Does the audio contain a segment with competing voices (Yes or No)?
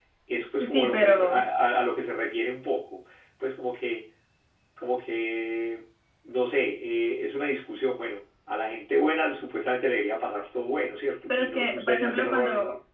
Yes